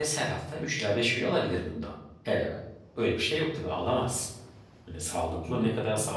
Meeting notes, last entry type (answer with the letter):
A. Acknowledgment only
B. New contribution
A